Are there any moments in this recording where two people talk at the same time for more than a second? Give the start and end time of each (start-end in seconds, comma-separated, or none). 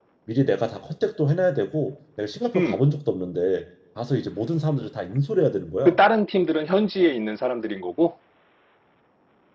none